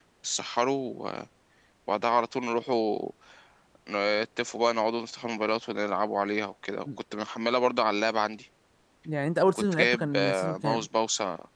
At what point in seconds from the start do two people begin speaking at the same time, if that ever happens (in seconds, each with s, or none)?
9.5 s